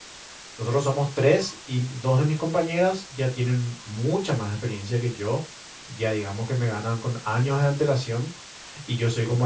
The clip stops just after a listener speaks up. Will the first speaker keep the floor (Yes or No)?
Yes